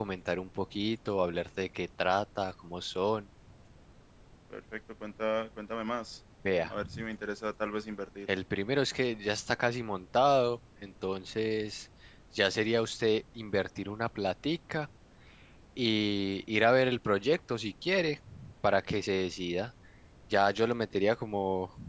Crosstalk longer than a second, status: none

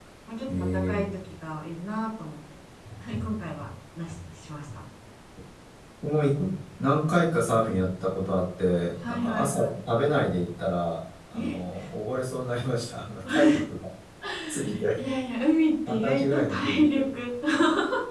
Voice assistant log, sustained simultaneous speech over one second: present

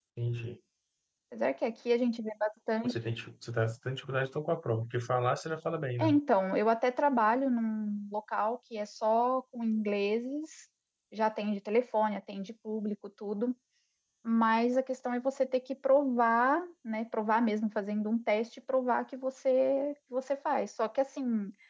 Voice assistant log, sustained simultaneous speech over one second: none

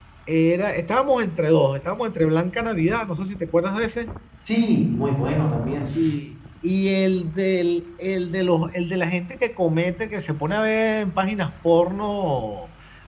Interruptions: none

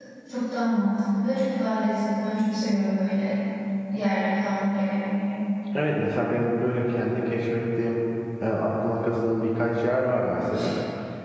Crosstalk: none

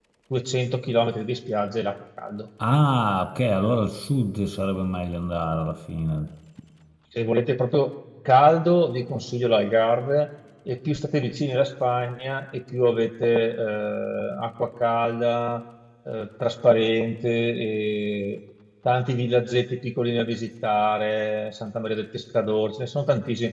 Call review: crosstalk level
none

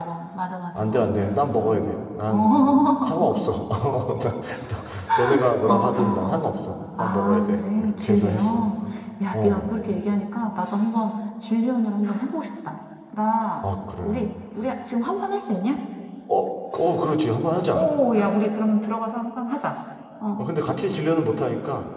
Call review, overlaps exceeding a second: present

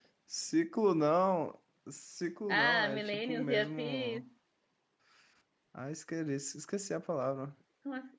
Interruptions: present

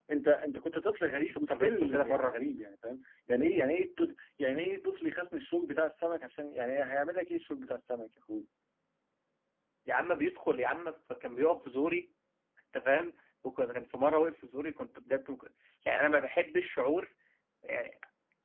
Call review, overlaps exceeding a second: present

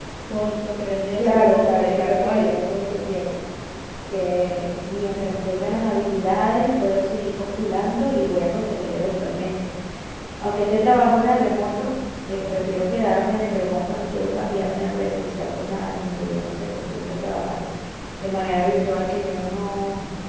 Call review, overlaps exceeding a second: present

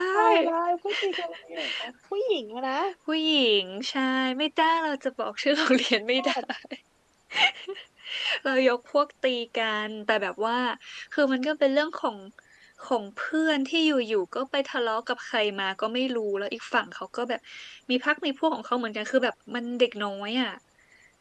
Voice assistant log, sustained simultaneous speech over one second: none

